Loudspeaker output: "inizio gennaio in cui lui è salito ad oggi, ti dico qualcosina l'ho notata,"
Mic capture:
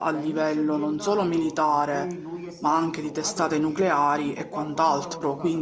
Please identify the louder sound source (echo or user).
user